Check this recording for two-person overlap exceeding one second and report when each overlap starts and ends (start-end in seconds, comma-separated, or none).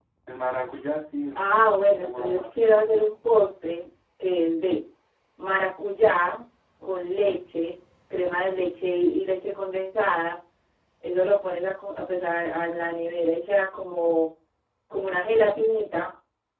1.8-3.0